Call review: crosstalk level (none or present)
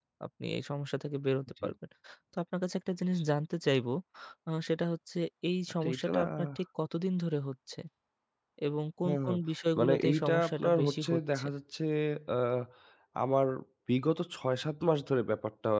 present